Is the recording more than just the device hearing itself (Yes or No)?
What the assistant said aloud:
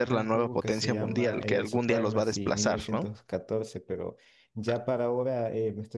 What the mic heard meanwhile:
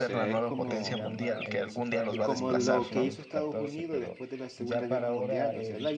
Yes